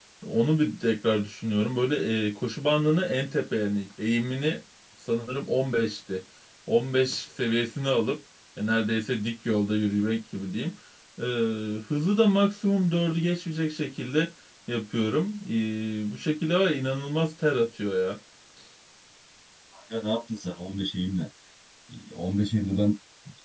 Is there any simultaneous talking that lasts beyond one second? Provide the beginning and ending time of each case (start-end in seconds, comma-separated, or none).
none